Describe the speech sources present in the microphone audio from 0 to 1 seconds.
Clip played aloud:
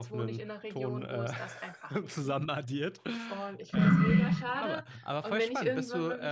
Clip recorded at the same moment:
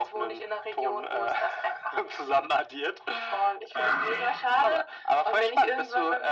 echo only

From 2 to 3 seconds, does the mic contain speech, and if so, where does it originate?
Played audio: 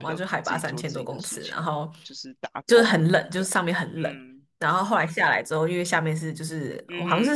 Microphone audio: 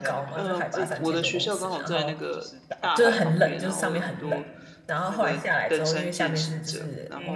both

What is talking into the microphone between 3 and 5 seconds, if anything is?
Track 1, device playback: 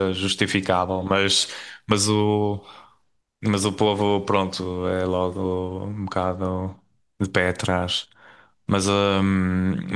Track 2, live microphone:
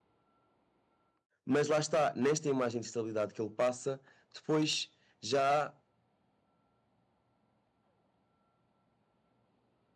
user only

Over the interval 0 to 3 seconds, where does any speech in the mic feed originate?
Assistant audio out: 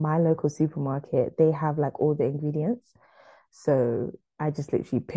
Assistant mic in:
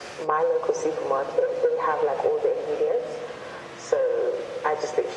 echo only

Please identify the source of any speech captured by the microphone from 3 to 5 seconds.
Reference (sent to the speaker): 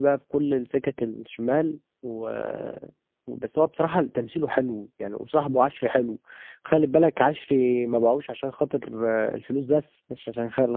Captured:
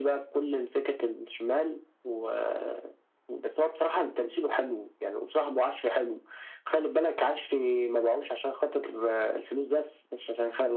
echo only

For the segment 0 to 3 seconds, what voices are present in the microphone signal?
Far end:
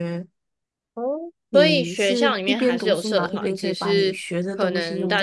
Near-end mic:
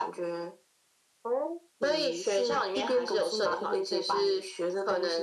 echo only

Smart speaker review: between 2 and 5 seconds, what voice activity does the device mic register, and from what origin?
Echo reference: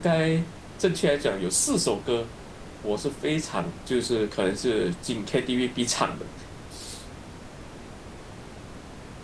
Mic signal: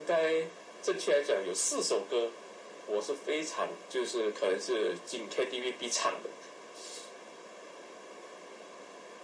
echo only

